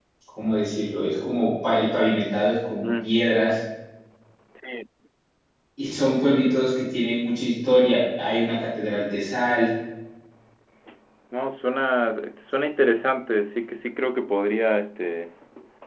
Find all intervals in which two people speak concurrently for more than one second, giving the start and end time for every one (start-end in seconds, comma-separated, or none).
none